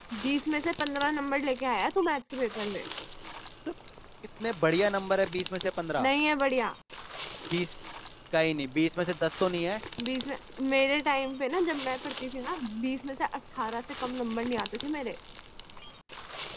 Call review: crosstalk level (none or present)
none